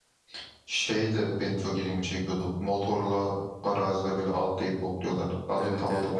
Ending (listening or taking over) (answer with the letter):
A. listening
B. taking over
B